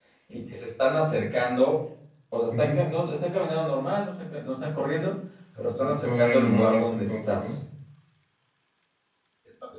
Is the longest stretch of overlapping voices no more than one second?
No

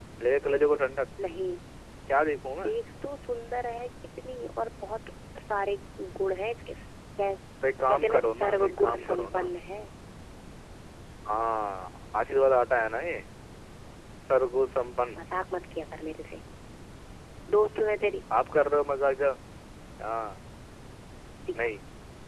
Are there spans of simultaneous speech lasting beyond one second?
Yes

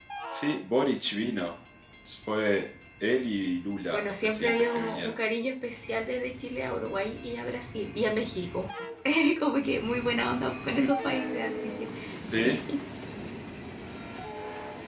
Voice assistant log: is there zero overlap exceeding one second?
No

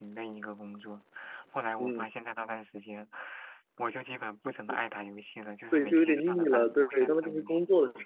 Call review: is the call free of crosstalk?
No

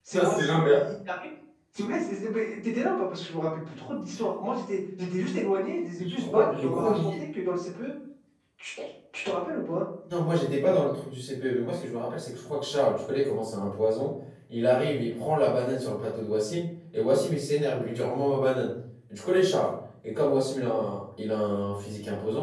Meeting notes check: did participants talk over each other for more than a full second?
Yes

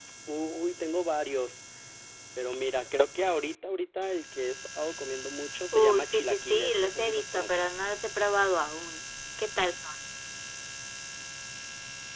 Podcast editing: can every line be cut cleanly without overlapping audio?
No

